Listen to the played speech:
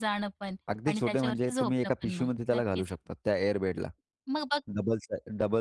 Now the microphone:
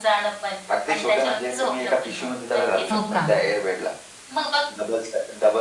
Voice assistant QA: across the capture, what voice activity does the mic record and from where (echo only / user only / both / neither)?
both